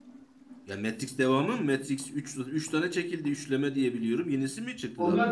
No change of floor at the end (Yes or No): No